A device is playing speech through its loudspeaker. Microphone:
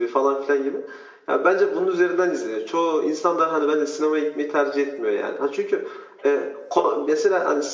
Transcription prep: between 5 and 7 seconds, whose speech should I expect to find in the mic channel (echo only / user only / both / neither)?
echo only